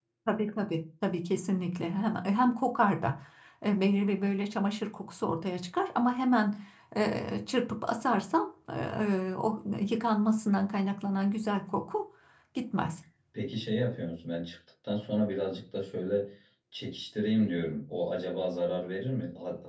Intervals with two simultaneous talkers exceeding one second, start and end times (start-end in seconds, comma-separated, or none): none